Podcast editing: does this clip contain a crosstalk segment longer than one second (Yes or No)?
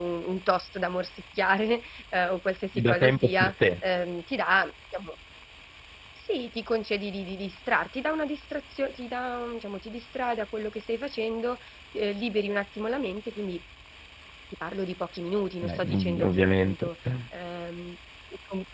Yes